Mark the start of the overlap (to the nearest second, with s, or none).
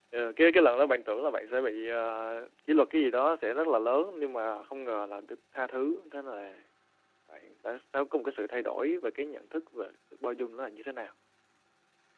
none